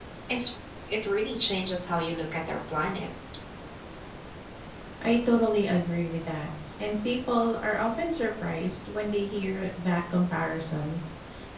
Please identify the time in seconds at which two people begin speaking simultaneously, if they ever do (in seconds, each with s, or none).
none